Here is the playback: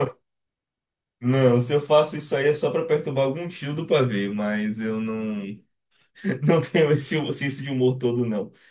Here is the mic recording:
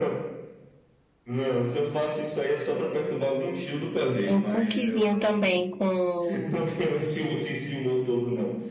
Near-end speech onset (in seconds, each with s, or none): 4.3 s